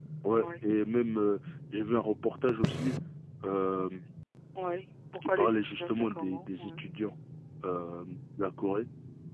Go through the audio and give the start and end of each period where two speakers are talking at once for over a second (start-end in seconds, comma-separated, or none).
5.2-6.8